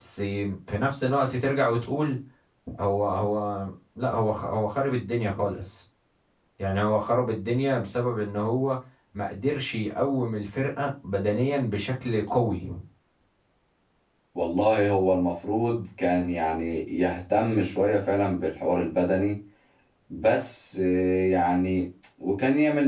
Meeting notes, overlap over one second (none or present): none